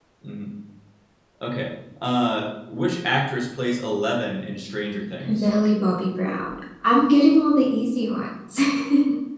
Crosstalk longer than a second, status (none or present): none